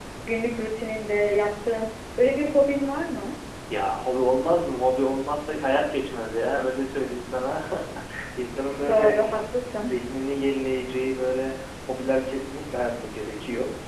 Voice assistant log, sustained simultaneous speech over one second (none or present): none